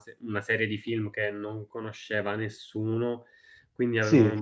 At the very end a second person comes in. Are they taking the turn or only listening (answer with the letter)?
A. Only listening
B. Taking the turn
A